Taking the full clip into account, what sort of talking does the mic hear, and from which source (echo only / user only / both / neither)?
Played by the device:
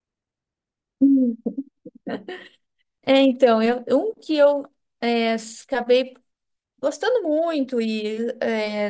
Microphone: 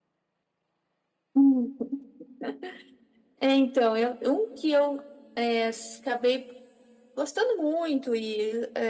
echo only